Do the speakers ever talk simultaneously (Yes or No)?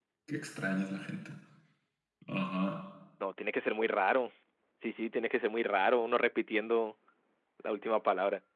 No